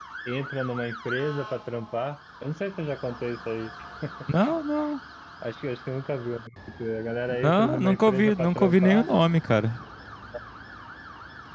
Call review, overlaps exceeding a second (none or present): present